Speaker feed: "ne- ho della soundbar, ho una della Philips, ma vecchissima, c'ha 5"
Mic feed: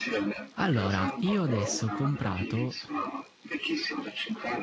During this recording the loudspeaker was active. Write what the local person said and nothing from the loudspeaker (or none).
Allora, io adesso ho comprato